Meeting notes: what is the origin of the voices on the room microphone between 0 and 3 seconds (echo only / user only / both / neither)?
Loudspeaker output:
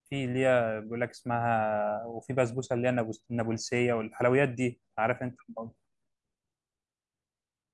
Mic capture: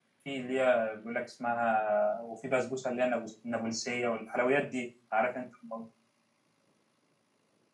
echo only